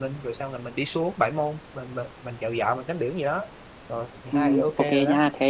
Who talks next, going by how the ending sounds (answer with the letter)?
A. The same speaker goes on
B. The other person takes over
B